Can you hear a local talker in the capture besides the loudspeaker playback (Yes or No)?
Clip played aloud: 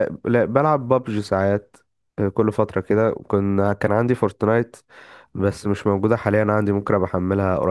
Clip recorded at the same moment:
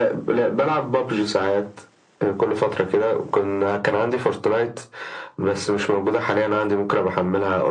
No